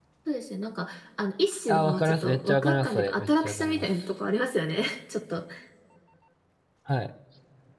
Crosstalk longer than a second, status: present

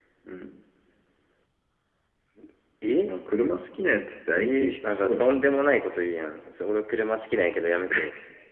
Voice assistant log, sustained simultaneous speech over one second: present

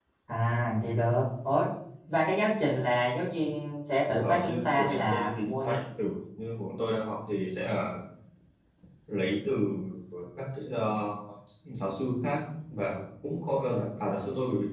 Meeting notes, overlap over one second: present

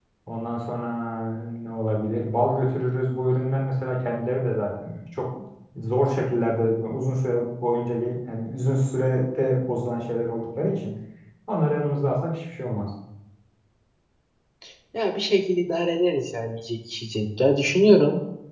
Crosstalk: none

